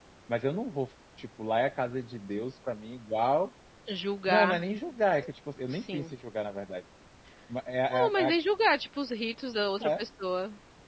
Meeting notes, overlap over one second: none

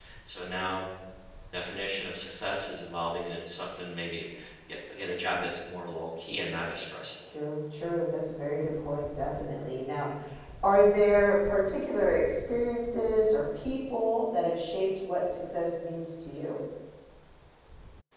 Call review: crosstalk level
none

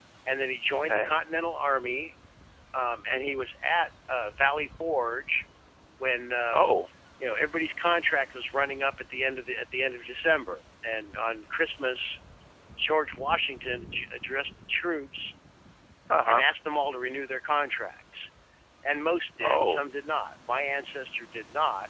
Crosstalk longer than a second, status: none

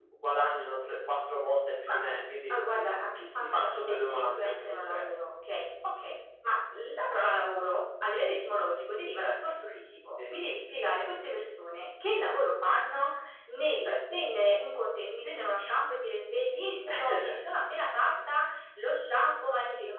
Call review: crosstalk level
present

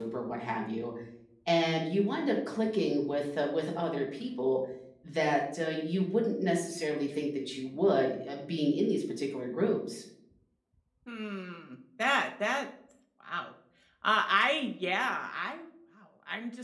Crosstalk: none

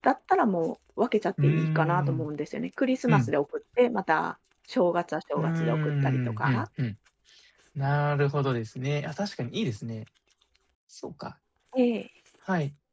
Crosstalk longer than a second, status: present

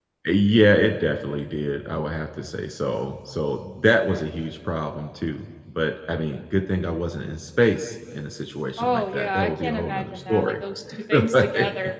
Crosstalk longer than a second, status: present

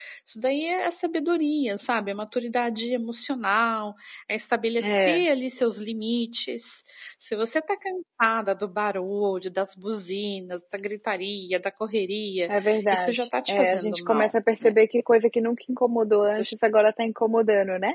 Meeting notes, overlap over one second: present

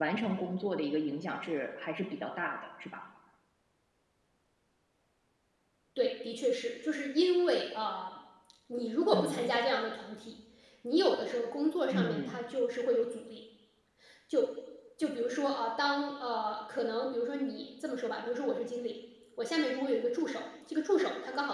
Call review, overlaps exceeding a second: none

